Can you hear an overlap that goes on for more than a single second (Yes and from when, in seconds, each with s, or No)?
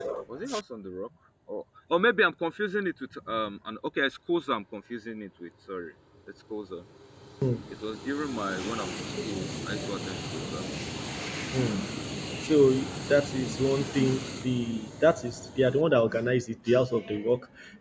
No